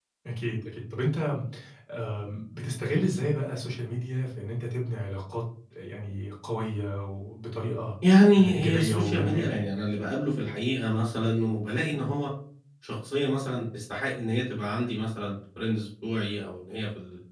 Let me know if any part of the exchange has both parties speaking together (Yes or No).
Yes